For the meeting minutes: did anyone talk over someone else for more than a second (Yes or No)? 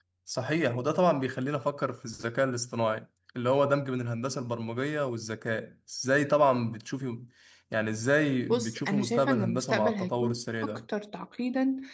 Yes